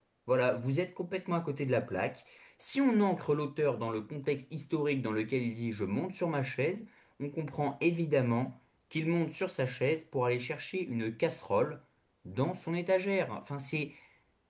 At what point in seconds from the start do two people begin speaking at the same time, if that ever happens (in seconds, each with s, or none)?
none